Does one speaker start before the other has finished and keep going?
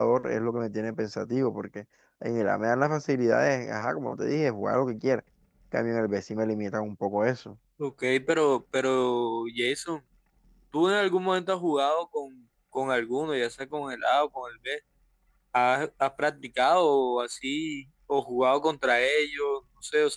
No

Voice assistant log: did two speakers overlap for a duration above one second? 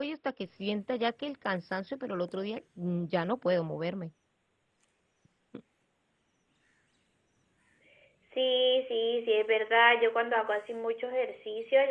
No

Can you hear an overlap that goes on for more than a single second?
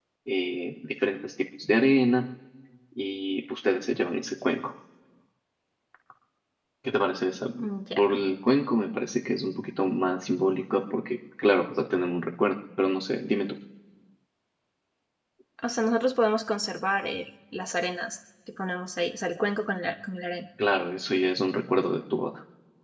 No

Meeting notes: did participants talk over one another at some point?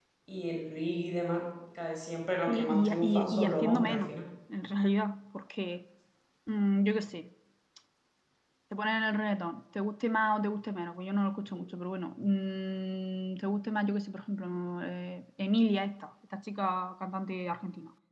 Yes, from 2.5 s

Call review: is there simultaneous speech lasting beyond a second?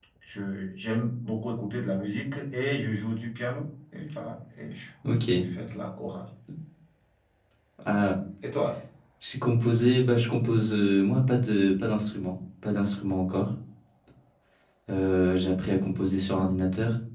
No

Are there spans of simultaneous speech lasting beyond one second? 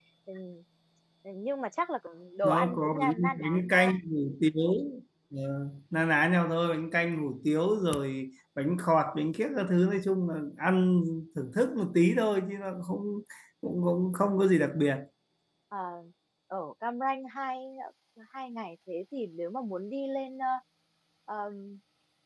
Yes, from 2.4 s

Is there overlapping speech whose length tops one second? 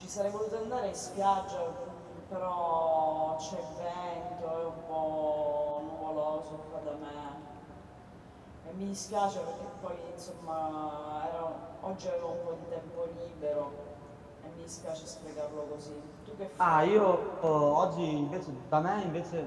No

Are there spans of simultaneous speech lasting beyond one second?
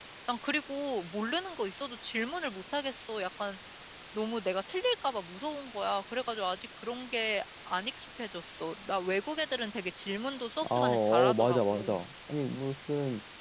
Yes, from 10.6 s

